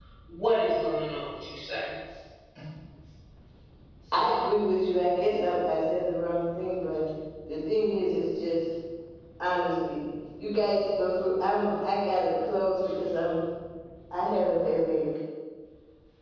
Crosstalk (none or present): none